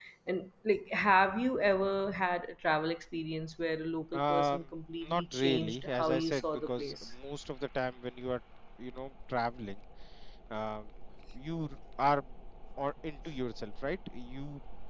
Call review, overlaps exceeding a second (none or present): present